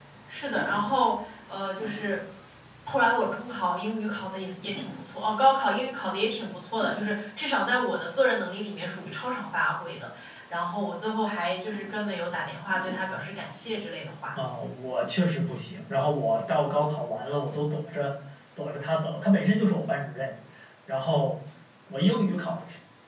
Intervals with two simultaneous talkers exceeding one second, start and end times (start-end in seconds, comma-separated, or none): none